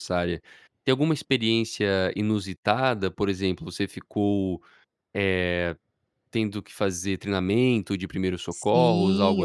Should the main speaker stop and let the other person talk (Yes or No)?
Yes